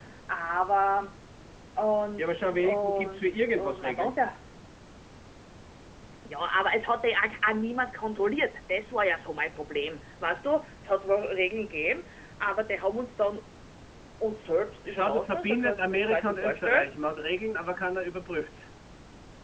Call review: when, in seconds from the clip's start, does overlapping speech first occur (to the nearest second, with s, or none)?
2 s